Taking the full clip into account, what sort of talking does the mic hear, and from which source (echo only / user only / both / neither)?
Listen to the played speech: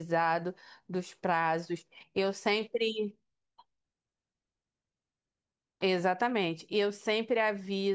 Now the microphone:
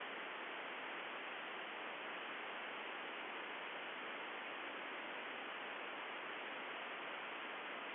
neither